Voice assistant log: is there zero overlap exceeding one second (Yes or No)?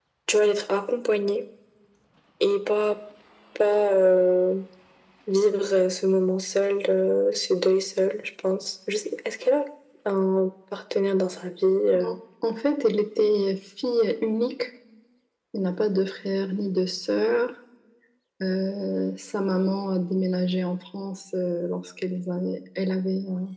Yes